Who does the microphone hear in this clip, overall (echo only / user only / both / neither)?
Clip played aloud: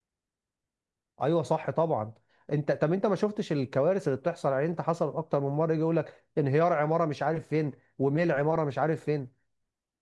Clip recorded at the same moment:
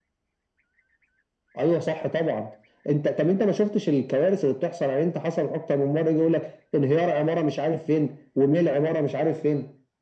echo only